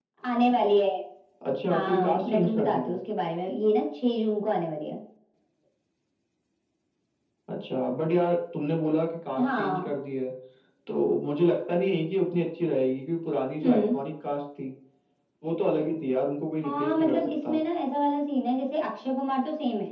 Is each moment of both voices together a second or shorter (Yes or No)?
No